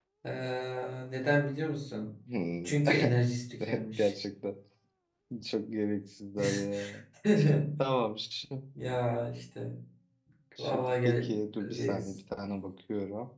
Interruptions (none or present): present